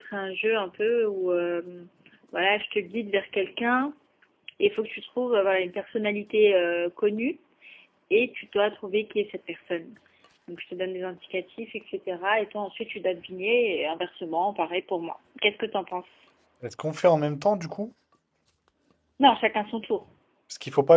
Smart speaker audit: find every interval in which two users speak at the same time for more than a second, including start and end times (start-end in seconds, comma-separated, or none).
none